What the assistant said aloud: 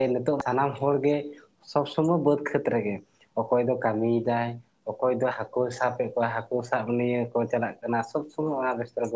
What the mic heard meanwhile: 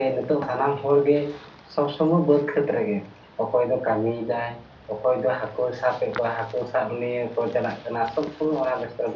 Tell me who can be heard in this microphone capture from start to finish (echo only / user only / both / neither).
echo only